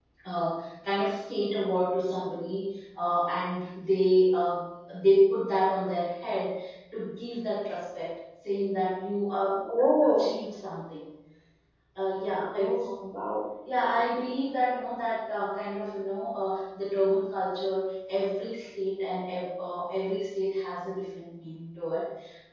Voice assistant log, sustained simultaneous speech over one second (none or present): none